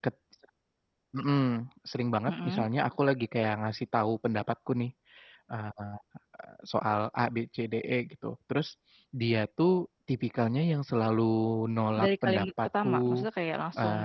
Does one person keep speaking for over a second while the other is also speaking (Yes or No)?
Yes